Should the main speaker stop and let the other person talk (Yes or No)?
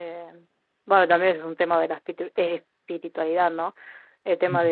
No